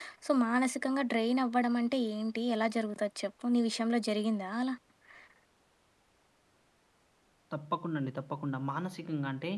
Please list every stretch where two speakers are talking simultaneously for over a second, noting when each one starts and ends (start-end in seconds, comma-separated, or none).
none